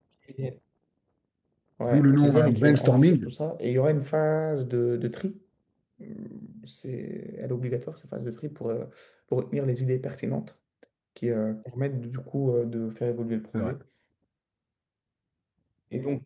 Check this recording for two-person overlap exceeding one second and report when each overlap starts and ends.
1.9-3.3

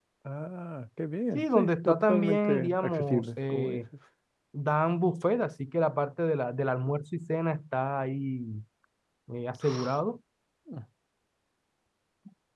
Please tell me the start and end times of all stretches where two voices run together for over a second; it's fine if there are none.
1.4-3.8

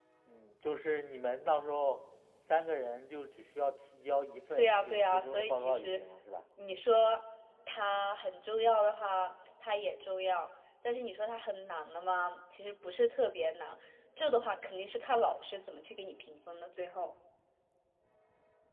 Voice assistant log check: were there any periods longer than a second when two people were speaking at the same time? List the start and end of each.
4.5-6.0

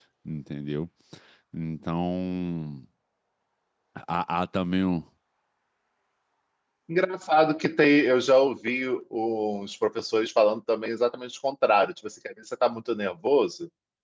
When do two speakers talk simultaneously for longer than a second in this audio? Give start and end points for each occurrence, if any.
none

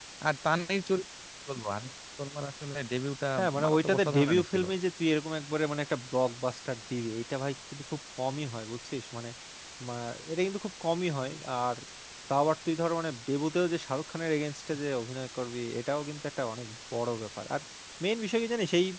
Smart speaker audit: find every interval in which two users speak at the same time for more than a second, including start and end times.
3.4-4.6

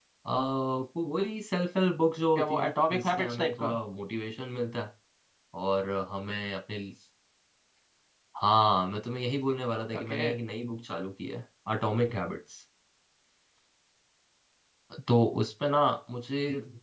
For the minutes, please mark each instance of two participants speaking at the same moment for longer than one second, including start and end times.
2.4-3.7

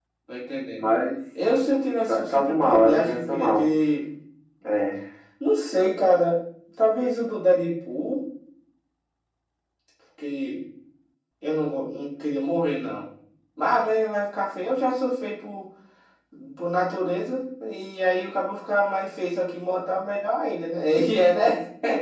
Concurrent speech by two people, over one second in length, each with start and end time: 2.1-3.6

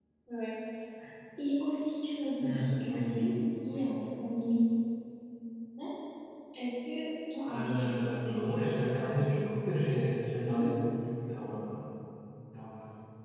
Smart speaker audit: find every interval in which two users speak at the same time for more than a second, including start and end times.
2.4-3.9, 7.5-9.6

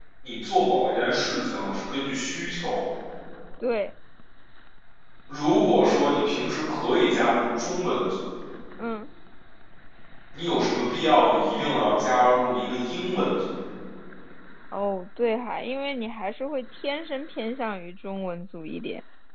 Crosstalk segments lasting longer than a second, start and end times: none

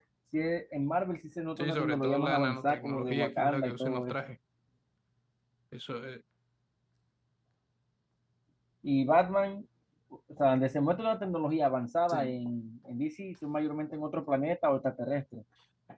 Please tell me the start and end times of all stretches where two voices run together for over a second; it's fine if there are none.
1.6-4.2

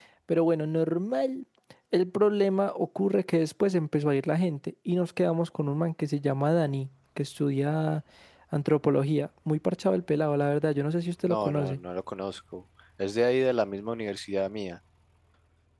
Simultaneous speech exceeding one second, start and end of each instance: none

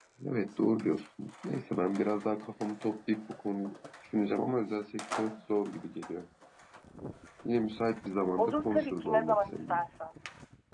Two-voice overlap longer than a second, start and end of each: 8.4-9.8

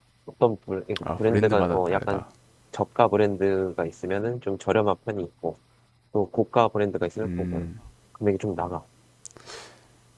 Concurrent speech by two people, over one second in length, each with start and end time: 1.0-2.2

